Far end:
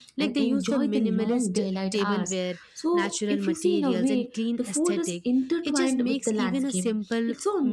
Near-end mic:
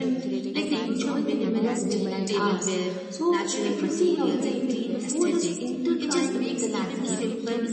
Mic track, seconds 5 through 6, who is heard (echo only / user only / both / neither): both